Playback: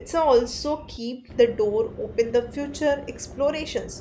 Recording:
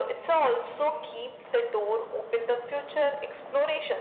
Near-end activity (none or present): none